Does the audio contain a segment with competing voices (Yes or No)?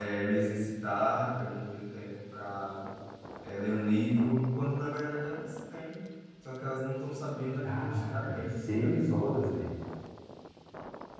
Yes